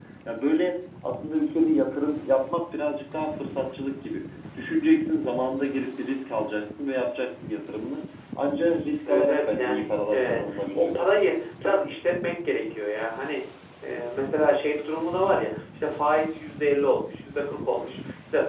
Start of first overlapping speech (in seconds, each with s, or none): 9.1 s